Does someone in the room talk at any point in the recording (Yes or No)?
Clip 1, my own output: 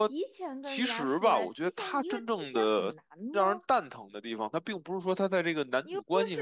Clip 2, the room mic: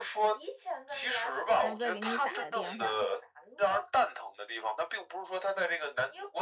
Yes